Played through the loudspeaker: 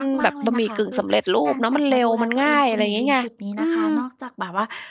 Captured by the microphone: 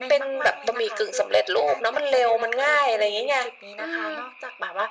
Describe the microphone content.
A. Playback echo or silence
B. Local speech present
A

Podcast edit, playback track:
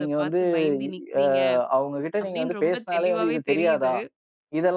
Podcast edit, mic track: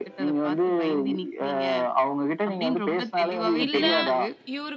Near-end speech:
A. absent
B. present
B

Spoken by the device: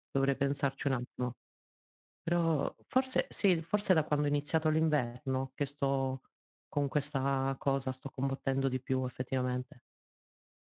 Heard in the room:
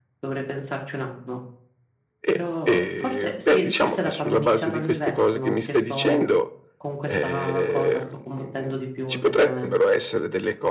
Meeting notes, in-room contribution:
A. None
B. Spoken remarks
B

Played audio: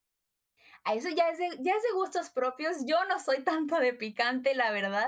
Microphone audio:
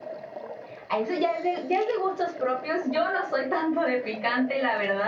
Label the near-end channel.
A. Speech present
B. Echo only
B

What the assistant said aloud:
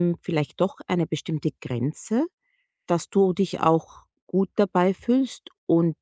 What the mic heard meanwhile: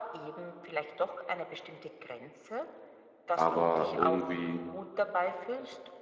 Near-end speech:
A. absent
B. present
B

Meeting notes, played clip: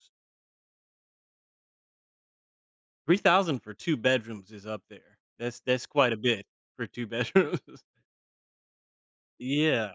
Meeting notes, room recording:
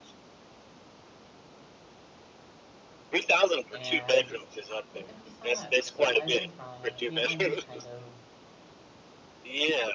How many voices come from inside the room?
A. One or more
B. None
A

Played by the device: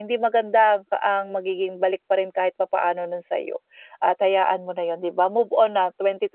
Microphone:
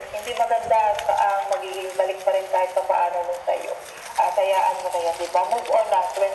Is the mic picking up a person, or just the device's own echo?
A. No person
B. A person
A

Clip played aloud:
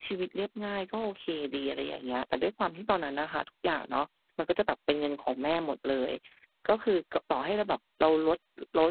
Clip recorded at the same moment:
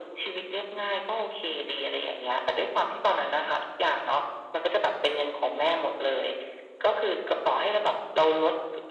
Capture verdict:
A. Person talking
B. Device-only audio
B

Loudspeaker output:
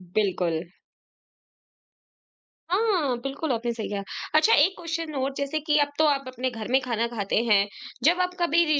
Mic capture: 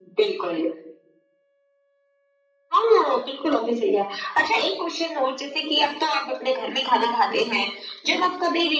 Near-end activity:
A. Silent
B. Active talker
A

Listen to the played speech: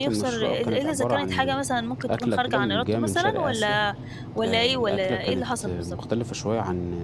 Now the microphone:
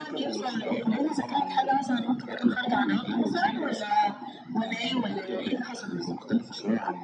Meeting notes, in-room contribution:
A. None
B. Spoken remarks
A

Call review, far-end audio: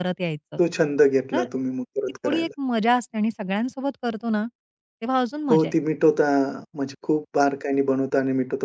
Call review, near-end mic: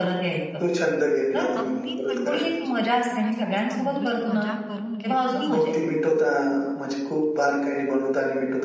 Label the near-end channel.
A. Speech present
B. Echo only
A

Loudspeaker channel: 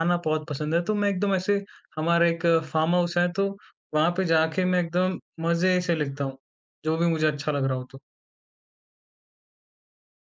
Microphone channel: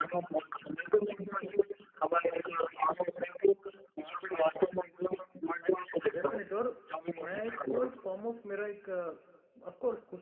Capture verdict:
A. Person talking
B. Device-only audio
A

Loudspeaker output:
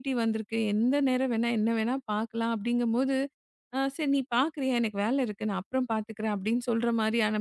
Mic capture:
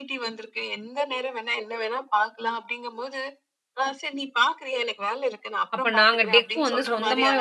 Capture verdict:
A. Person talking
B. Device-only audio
A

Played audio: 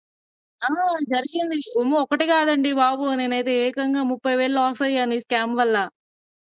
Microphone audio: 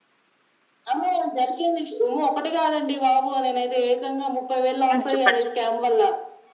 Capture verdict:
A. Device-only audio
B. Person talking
B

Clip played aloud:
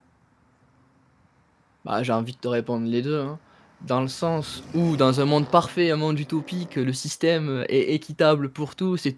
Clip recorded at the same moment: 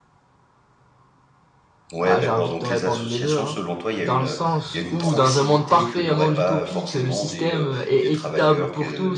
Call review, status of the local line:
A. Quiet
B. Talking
B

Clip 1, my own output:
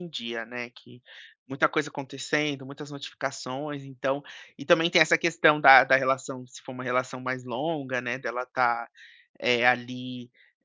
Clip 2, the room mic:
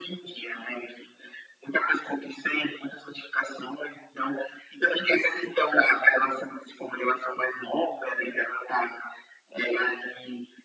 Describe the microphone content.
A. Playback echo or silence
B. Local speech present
A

